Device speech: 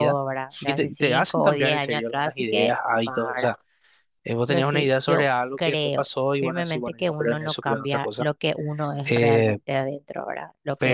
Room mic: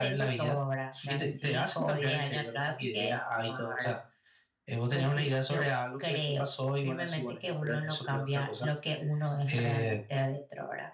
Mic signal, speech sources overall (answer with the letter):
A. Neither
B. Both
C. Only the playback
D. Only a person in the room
C